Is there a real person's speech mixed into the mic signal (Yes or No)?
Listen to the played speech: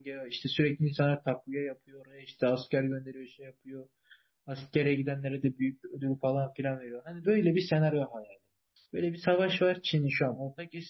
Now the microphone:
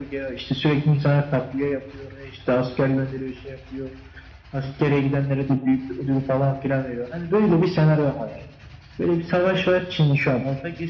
No